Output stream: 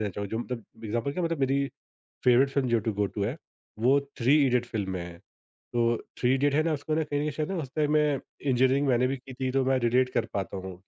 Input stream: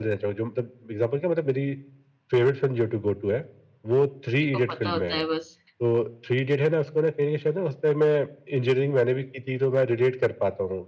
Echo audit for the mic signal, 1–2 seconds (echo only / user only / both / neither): echo only